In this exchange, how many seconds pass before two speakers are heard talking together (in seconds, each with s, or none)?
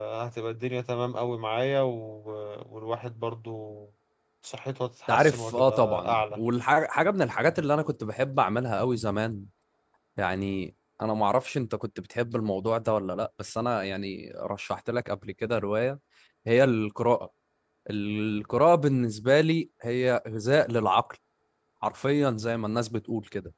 5.1 s